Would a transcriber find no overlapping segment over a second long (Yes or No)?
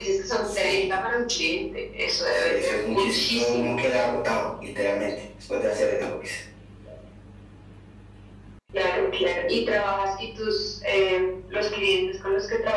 No